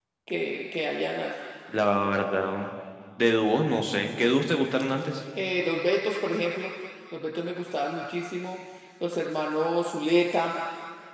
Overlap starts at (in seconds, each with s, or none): none